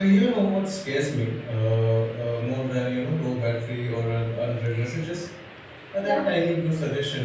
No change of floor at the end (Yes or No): Yes